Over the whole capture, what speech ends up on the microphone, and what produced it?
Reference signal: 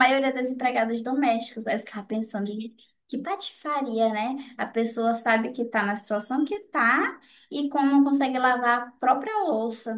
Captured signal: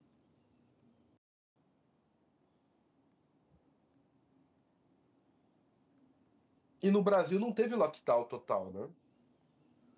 user only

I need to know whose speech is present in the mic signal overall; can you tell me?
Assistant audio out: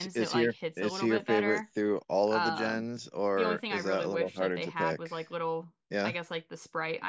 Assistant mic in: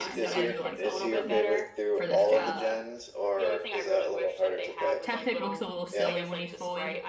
both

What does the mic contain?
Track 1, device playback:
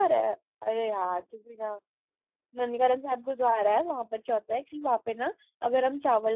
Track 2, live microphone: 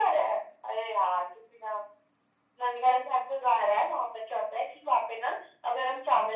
echo only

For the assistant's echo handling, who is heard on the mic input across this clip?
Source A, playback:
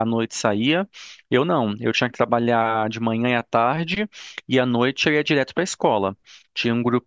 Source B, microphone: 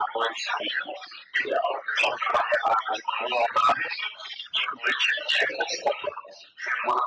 echo only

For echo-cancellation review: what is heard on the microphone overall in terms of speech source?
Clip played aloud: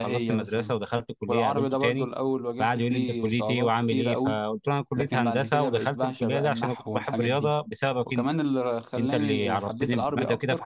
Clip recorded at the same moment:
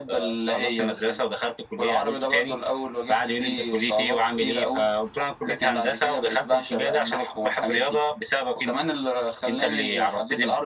echo only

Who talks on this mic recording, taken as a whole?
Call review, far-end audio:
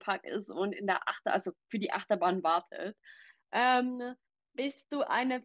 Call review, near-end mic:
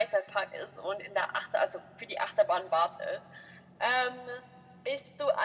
echo only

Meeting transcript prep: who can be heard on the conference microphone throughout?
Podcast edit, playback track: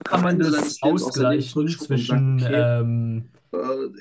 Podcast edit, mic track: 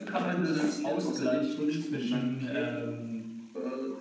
echo only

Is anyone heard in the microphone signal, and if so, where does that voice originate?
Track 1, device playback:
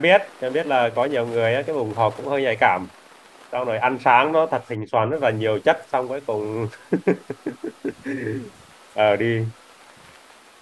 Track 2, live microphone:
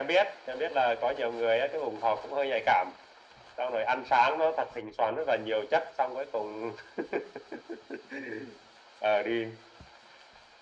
echo only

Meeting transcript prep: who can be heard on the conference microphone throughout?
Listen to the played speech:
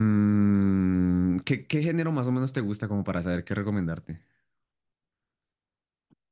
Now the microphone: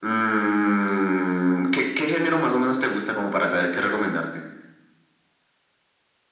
echo only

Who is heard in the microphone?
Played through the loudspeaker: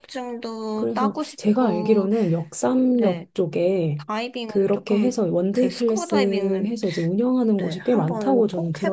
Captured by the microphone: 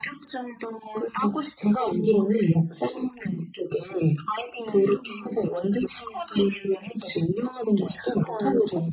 both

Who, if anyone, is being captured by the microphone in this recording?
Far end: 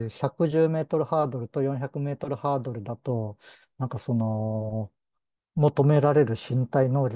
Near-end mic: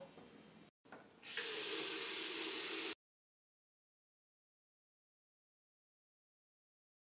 neither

